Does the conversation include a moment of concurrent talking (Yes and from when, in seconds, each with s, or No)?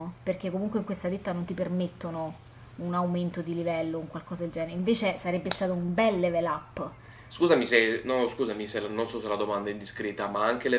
No